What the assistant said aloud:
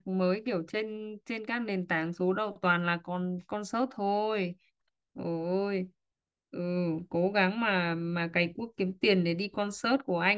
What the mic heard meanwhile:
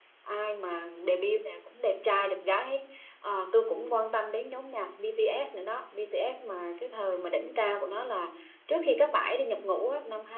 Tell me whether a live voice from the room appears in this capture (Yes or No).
Yes